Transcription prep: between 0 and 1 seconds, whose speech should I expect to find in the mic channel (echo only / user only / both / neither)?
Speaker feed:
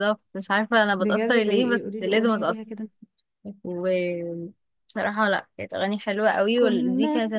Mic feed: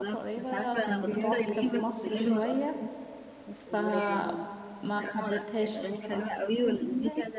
both